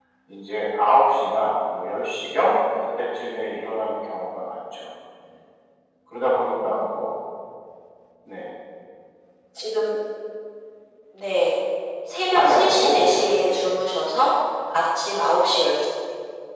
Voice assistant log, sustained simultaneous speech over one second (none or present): present